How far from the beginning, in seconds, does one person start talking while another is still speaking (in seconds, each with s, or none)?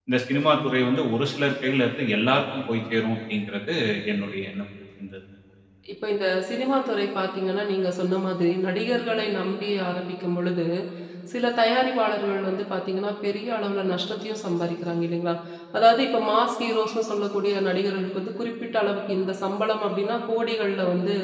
none